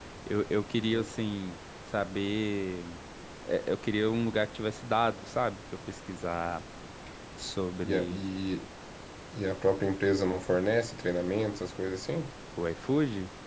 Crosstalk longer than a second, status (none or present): none